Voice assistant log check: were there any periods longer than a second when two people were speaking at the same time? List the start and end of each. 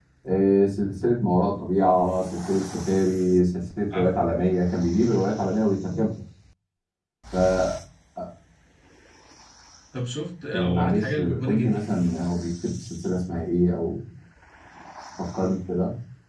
10.5-11.8

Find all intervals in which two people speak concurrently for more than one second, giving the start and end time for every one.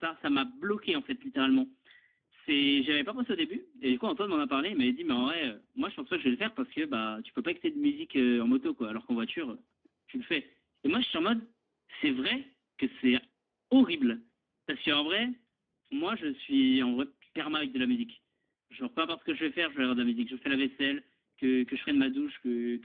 none

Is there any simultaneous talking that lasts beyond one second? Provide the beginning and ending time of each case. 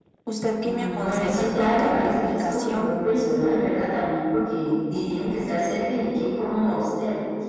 0.6-2.9

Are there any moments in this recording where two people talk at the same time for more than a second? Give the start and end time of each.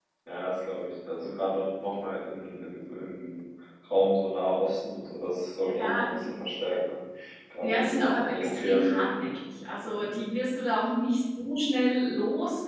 7.6-9.1

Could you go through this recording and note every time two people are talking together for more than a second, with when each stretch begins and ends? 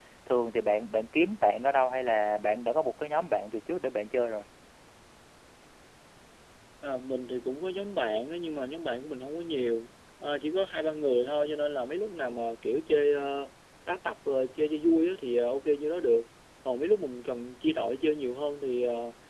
none

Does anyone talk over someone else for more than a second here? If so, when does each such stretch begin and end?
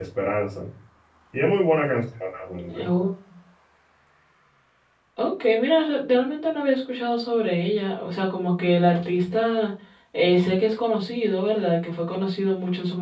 none

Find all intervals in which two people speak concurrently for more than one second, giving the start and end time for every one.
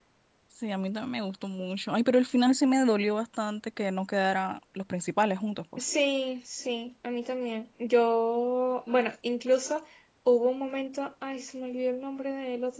none

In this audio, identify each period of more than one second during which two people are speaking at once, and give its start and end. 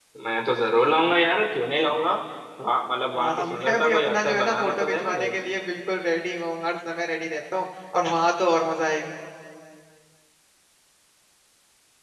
3.1-5.3

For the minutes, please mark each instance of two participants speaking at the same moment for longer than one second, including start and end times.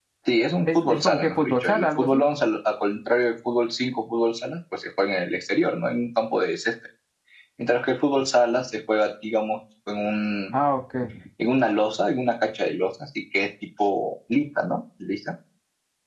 0.7-2.2

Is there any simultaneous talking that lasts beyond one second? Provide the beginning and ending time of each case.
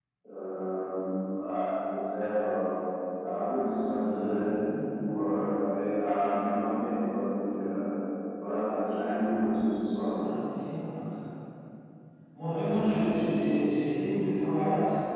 none

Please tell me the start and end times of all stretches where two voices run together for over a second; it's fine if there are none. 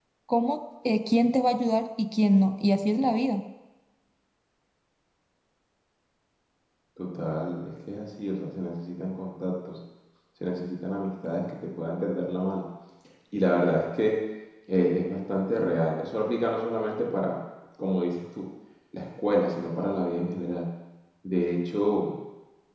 none

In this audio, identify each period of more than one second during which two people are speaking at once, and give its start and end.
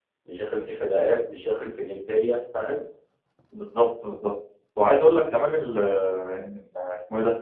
none

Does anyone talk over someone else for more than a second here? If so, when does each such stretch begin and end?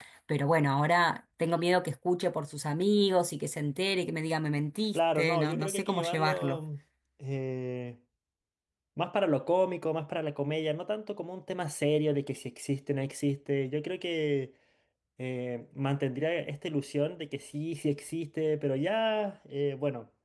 4.9-6.6

